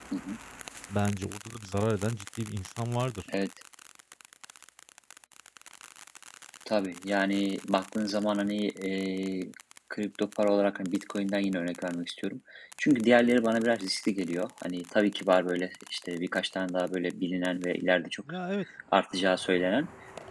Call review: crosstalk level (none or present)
none